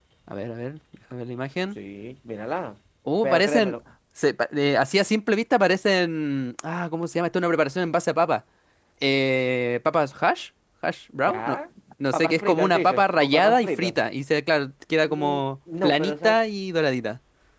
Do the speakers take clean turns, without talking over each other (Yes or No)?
No